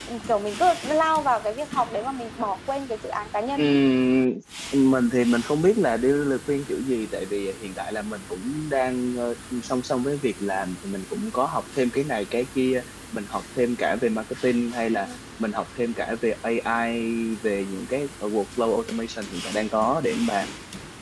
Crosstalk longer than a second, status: none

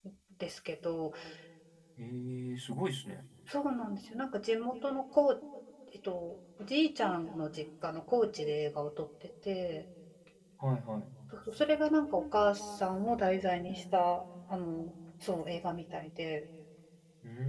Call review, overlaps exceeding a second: none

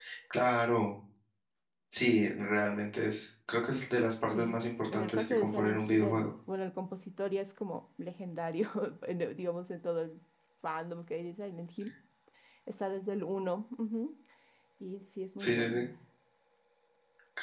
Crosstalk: present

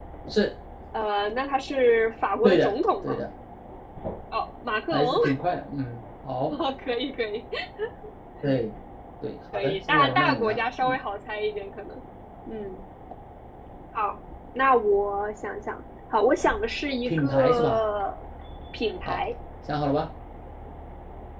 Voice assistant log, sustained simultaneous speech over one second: present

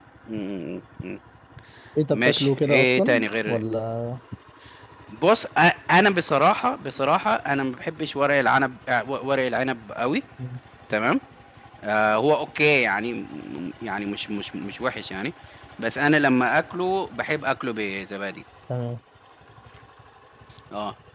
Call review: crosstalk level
present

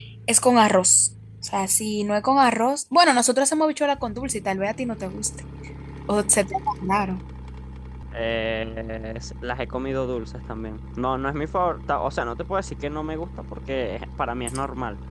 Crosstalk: none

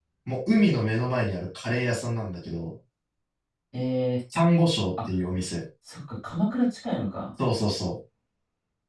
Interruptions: none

